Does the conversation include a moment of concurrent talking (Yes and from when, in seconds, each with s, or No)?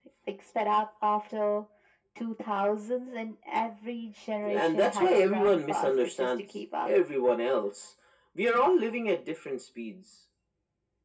Yes, from 4.4 s